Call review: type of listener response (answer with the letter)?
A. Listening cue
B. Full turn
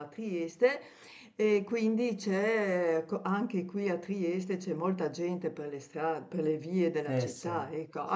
A